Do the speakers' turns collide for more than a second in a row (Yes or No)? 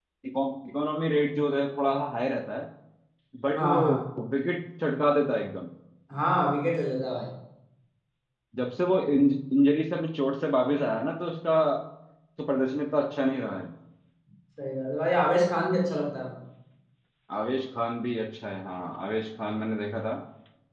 No